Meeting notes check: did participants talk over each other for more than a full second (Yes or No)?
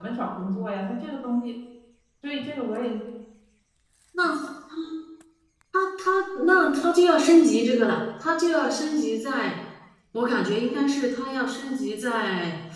No